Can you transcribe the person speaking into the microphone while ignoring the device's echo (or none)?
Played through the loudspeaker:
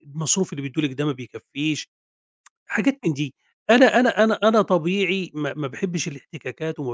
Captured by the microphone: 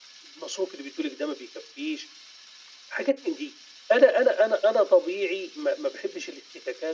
none